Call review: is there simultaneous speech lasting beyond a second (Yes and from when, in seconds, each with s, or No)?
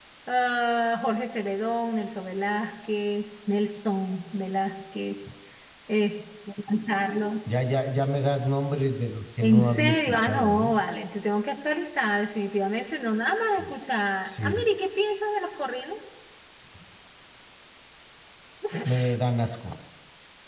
Yes, from 9.4 s